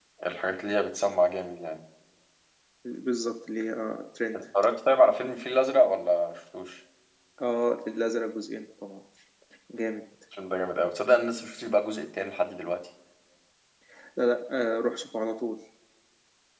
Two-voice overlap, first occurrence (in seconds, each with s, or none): none